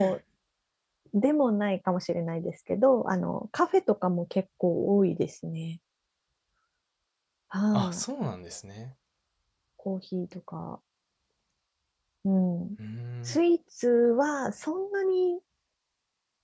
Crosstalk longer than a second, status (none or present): none